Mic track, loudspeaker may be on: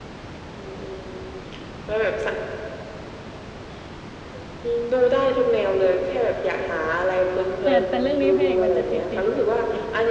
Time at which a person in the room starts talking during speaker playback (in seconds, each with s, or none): 7.6 s